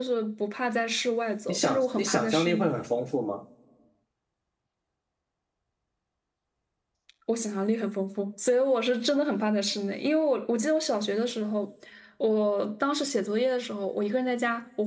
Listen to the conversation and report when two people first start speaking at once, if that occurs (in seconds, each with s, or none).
1.5 s